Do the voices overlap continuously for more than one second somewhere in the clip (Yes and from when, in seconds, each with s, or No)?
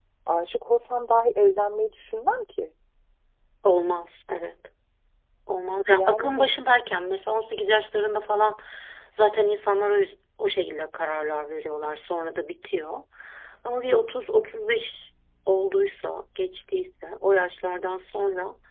No